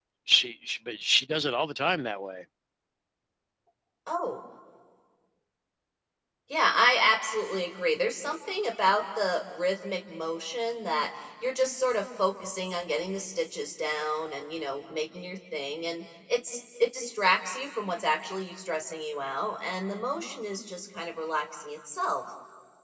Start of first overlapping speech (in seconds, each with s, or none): none